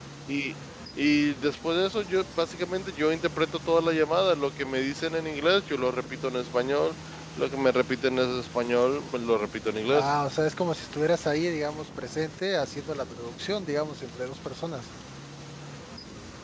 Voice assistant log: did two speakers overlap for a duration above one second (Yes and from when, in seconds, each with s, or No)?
No